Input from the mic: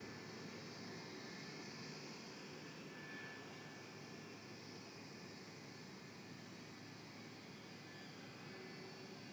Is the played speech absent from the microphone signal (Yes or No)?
Yes